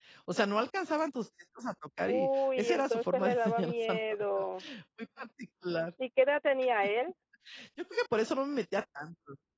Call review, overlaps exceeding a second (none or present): present